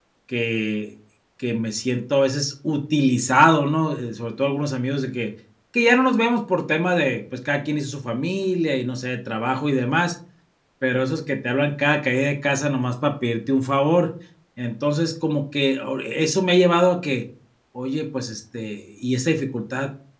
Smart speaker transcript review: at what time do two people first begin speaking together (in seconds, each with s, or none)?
none